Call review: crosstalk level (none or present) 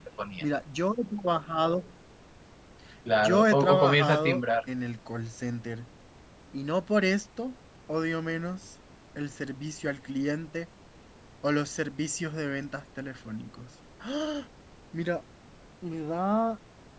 present